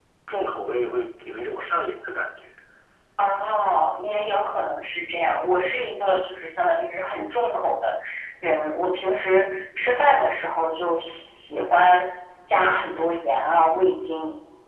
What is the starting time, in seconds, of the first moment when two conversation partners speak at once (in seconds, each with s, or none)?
none